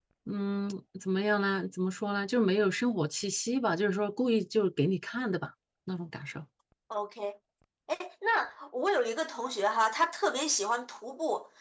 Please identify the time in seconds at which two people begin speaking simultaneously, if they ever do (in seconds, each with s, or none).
none